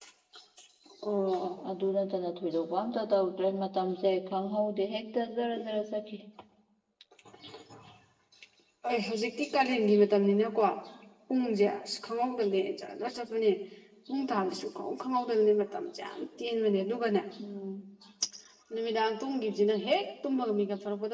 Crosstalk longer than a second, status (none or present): none